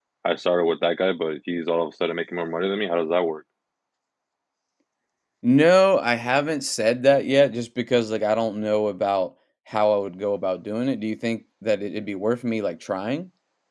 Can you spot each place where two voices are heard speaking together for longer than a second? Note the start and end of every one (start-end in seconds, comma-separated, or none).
none